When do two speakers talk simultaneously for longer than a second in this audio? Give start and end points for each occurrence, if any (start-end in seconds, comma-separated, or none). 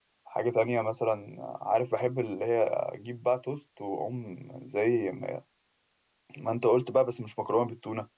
none